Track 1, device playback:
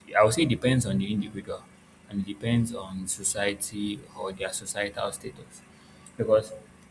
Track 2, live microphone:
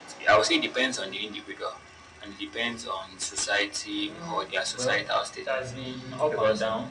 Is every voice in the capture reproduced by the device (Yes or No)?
No